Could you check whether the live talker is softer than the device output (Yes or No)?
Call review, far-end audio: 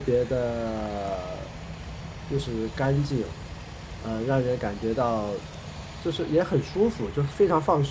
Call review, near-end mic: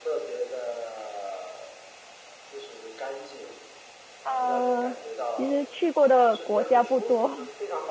No